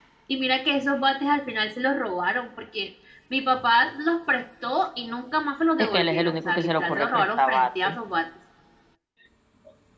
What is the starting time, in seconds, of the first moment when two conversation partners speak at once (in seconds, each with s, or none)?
5.8 s